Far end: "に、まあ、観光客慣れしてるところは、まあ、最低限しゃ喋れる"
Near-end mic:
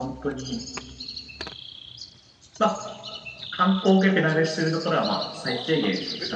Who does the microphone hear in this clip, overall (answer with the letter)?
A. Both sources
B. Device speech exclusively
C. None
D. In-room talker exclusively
A